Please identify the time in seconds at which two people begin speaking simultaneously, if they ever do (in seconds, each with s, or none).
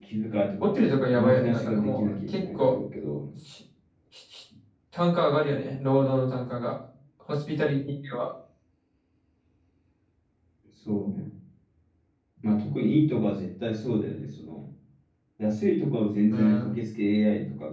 0.6 s